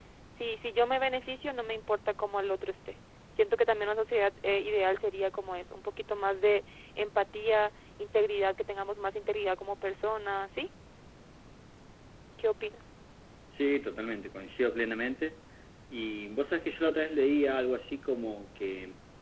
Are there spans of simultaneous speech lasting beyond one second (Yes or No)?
No